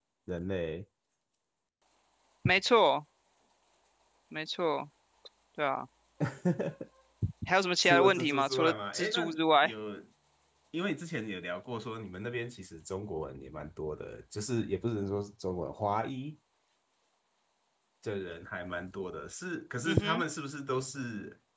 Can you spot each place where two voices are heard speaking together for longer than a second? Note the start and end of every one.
7.8-9.2

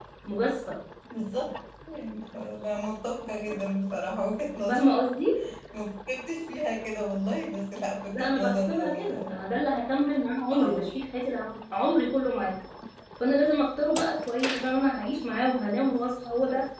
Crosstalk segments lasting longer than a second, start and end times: 8.1-9.3

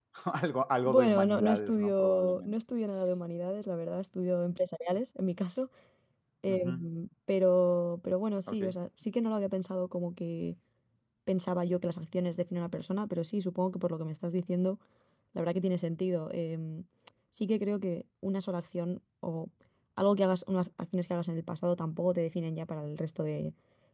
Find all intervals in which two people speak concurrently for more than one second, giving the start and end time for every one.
0.8-2.5

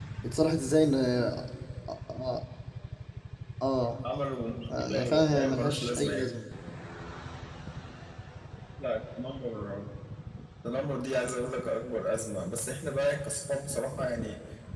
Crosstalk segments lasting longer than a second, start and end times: 4.8-6.4

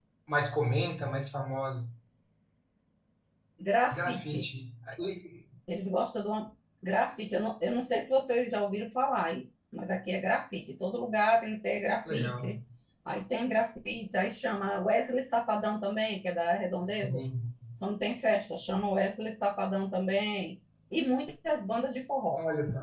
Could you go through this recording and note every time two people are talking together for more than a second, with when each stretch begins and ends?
none

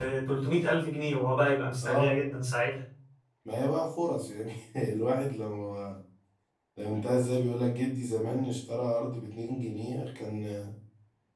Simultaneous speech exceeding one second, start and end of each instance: none

